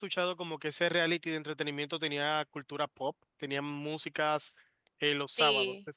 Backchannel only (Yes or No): No